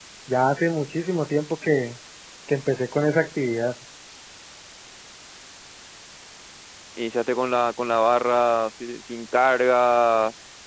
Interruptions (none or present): none